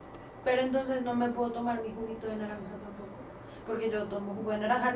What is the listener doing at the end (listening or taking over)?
listening